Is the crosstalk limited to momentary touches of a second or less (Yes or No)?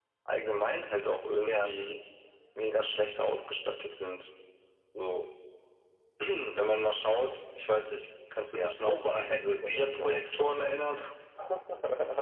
No